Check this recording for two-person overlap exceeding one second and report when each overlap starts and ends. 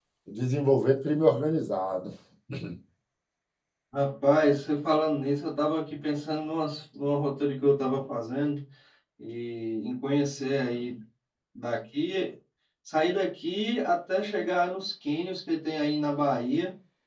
none

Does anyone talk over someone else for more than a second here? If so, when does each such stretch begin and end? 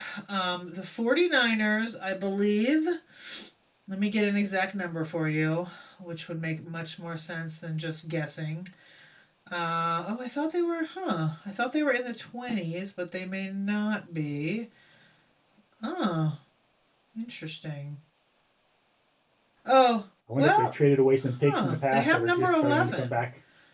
21.4-23.2

